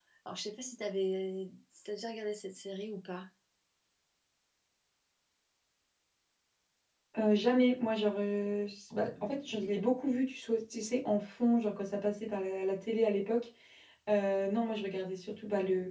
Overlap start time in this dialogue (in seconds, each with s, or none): none